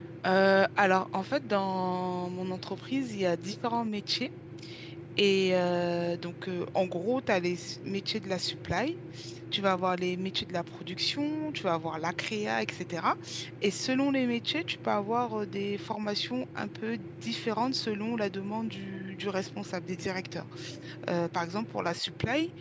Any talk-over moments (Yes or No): No